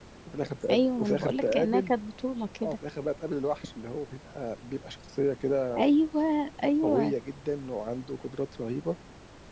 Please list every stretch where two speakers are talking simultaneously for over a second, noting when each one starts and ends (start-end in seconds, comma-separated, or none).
0.7-1.9